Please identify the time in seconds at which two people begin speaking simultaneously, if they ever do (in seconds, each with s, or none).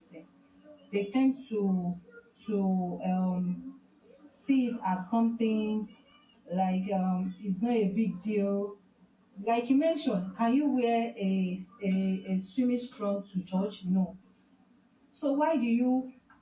none